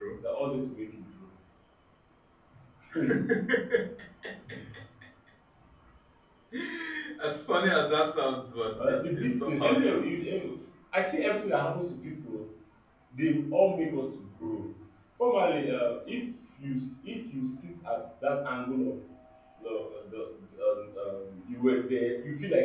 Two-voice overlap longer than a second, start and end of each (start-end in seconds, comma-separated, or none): 8.8-10.1